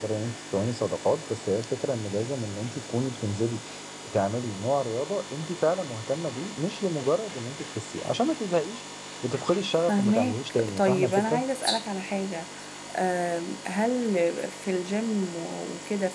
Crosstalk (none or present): present